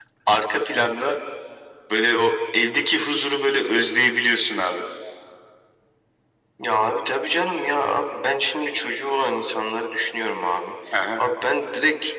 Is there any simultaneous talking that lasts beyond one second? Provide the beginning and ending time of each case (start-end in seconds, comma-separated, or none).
none